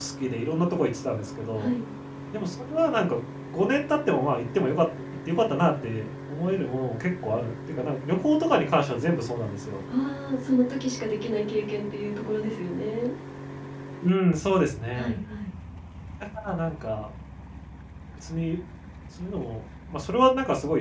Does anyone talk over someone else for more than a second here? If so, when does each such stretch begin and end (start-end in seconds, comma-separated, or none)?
none